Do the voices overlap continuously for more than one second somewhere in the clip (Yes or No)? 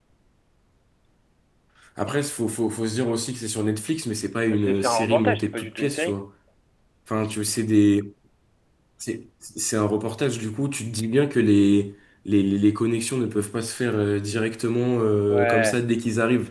Yes